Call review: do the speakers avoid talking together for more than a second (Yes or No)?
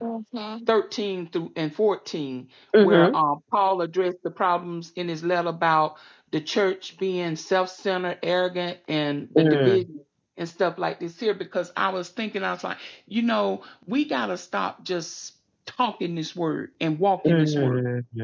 Yes